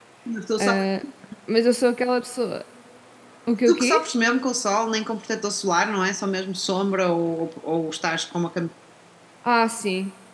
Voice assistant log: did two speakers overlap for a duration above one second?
No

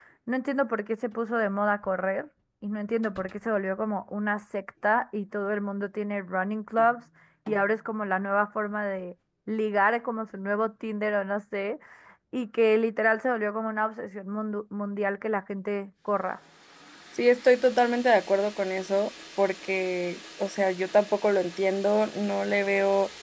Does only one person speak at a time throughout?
Yes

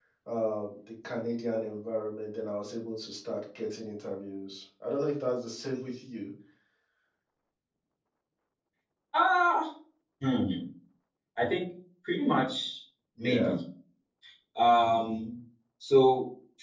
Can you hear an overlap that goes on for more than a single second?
No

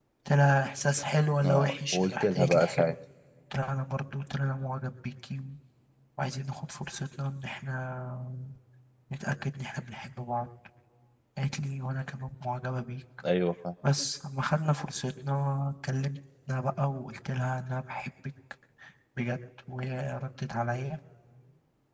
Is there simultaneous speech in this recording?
Yes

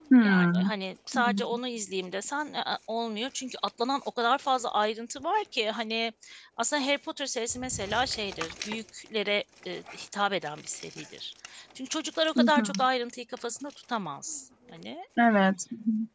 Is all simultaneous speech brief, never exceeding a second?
Yes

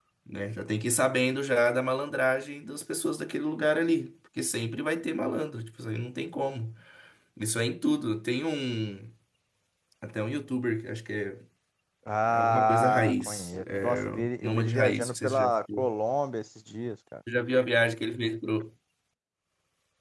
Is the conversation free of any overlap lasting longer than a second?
No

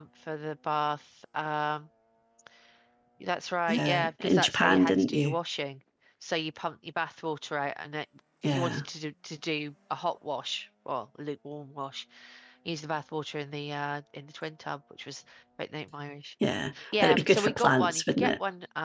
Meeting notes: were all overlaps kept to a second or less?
No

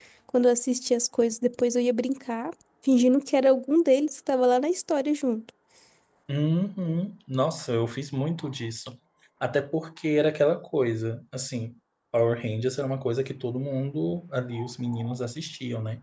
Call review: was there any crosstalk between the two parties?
No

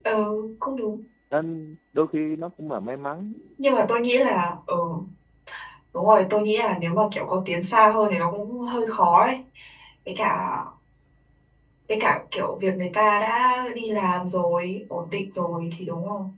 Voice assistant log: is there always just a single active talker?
Yes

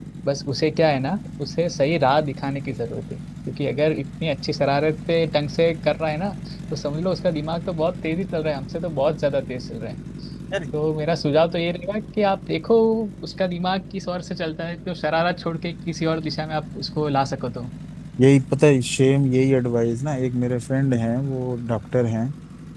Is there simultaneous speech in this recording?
No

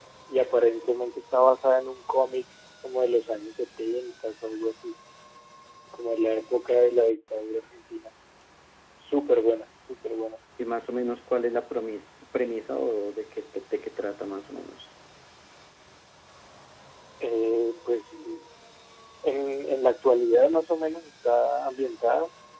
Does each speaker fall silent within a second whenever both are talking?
Yes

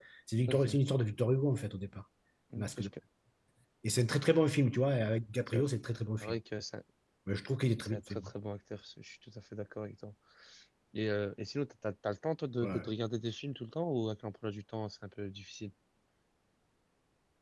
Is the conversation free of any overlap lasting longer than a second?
Yes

